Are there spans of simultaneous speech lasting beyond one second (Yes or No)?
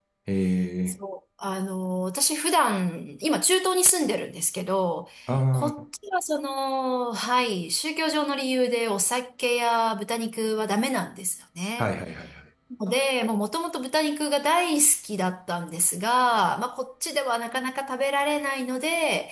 No